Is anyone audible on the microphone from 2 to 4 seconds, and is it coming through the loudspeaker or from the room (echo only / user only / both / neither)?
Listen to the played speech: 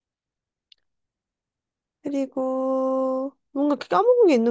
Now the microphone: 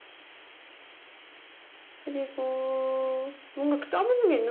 echo only